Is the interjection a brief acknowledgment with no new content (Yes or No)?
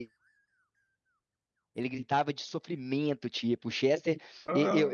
Yes